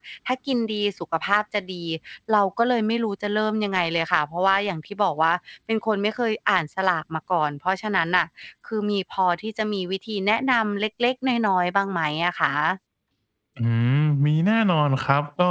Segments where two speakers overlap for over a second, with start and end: none

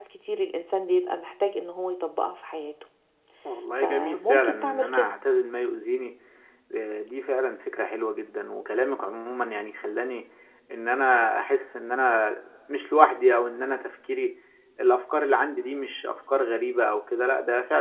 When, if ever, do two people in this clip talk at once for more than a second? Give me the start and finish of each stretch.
3.8-5.2

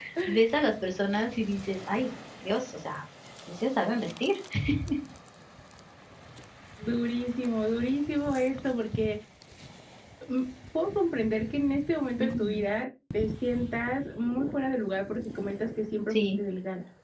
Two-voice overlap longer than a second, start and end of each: none

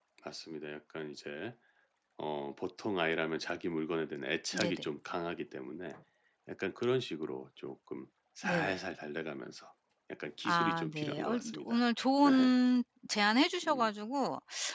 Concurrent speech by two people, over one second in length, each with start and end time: 10.4-11.8

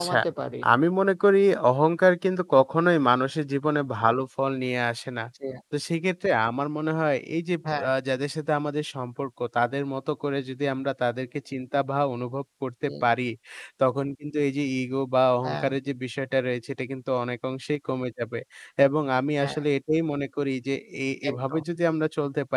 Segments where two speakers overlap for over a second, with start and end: none

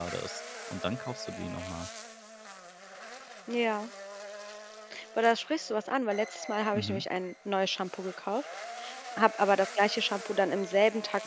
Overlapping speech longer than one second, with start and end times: none

